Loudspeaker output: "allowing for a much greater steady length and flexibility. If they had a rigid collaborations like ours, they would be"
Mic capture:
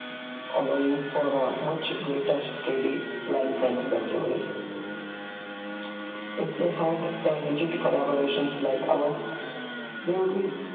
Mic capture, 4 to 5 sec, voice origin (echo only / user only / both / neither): both